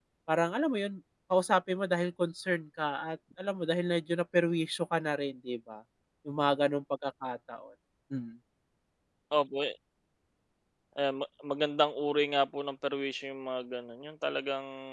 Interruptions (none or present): none